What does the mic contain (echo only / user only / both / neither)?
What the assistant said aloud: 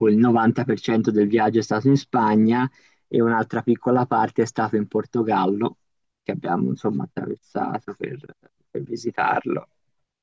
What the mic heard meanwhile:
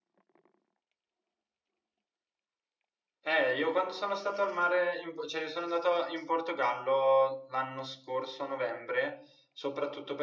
user only